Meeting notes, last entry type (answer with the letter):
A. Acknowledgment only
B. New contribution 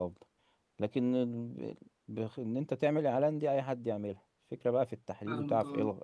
A